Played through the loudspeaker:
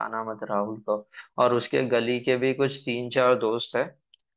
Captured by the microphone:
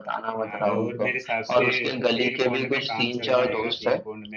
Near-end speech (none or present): present